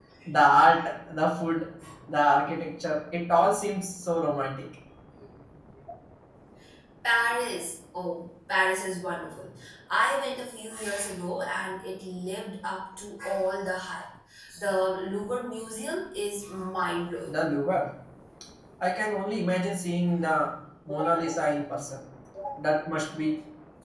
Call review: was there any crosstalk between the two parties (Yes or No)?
No